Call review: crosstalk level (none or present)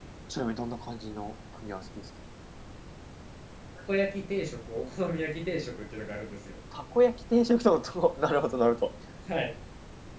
none